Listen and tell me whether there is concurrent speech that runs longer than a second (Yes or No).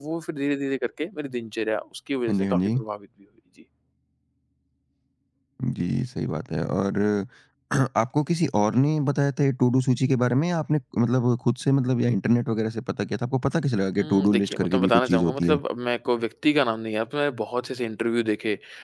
Yes